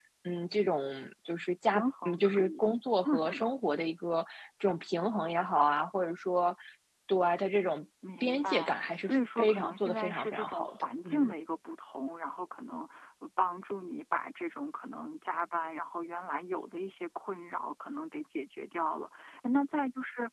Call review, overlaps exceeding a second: present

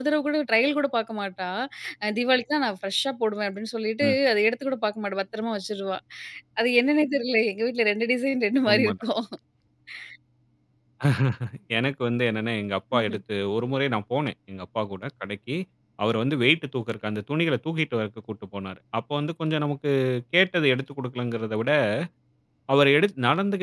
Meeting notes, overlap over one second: none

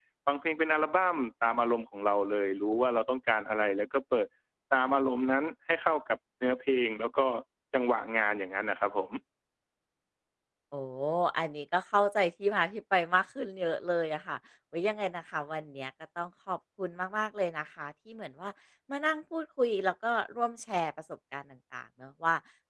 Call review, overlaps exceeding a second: none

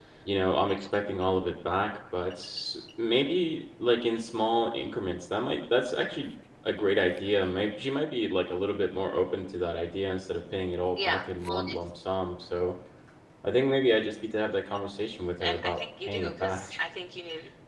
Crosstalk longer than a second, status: present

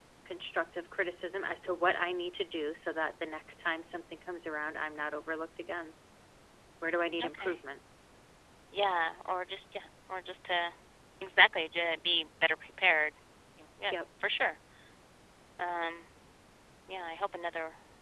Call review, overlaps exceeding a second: none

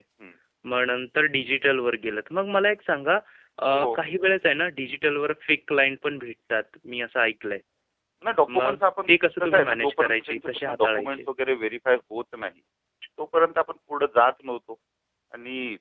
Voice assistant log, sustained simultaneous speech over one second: present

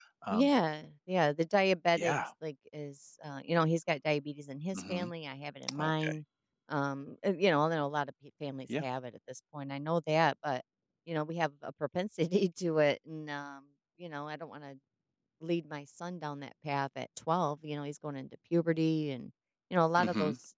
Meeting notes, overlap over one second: none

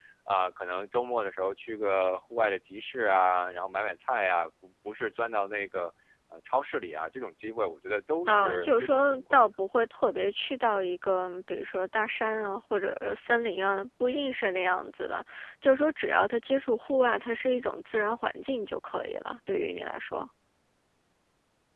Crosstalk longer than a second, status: present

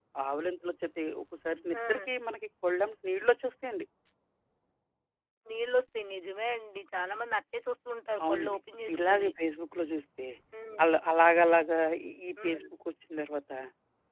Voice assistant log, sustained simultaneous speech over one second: none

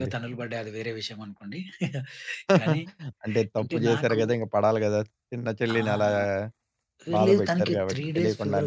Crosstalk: present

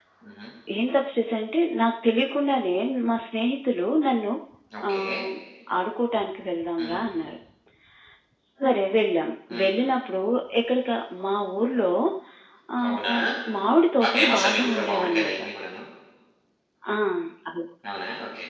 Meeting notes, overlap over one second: present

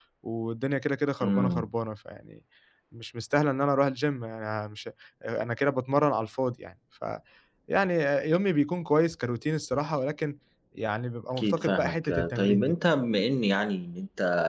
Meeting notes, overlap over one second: present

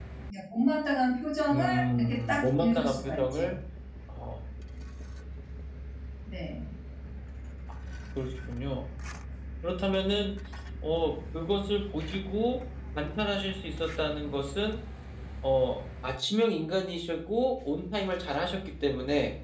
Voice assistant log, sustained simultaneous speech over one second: present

